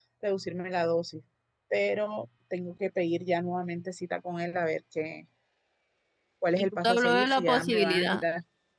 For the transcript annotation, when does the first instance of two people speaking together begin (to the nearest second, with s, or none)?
7 s